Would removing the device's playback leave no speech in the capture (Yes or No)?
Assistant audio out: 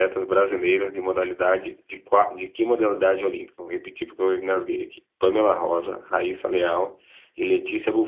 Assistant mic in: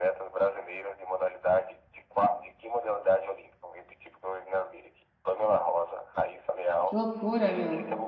No